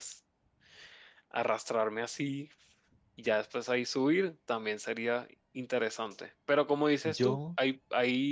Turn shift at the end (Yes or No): No